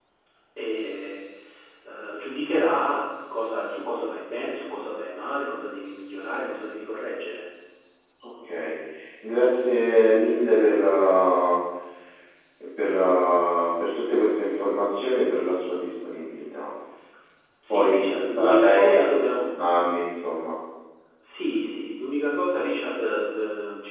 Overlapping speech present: Yes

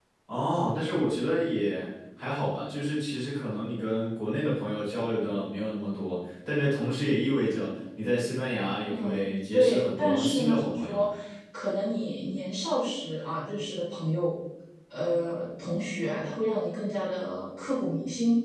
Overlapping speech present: Yes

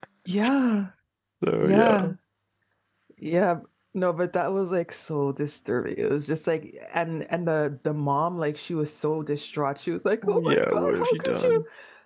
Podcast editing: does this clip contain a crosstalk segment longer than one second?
Yes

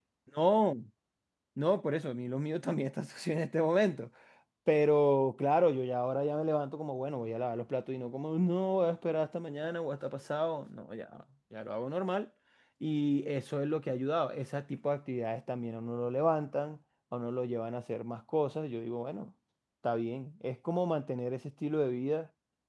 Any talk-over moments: No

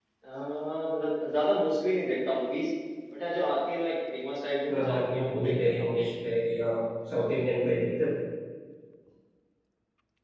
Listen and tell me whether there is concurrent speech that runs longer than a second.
Yes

